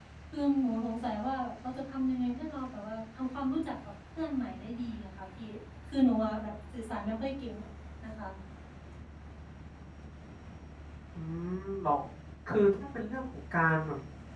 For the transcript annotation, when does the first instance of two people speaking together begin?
none

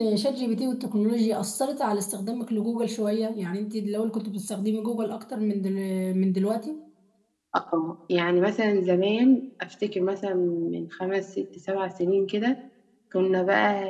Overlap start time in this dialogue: none

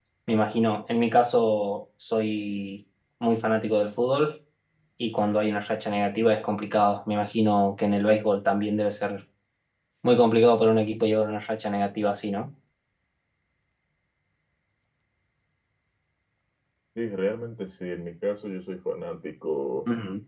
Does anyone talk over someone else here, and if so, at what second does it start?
none

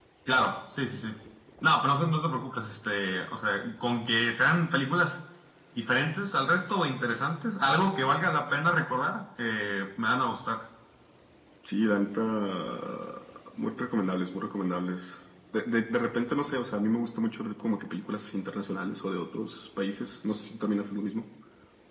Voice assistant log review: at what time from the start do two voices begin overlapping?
none

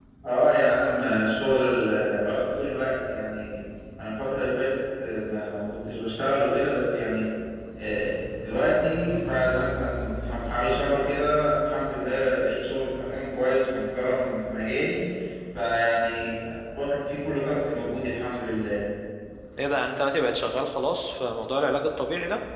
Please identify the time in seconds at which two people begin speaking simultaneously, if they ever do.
none

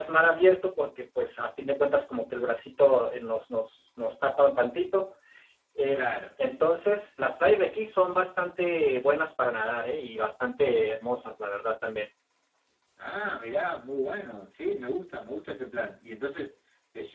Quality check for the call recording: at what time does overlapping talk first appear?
none

